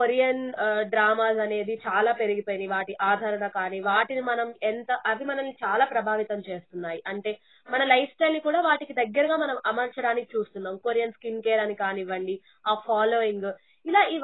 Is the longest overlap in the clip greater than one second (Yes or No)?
No